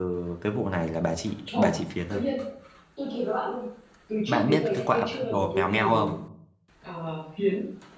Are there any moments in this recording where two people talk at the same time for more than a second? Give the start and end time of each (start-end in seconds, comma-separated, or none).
4.3-6.2